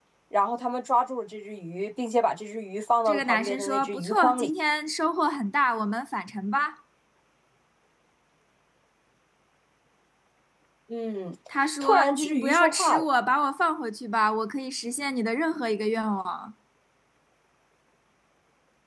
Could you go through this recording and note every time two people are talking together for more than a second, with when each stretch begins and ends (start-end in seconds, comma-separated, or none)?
3.0-4.5, 11.8-13.1